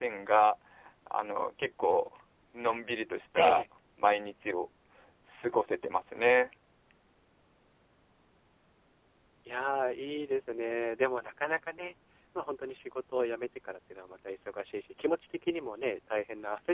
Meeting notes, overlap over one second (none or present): none